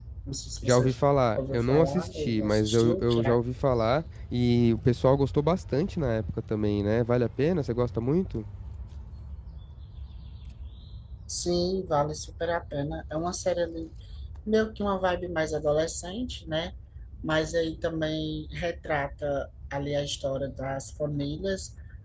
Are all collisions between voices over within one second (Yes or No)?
No